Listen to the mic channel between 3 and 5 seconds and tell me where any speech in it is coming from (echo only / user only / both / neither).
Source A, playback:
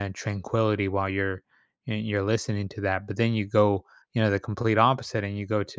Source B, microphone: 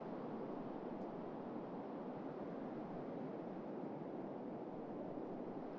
neither